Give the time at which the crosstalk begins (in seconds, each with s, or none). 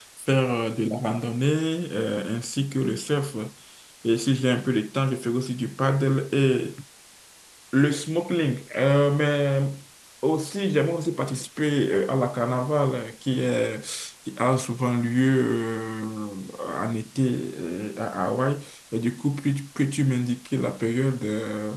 none